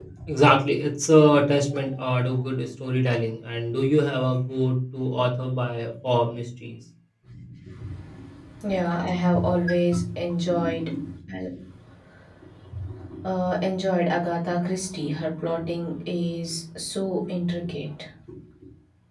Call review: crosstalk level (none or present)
none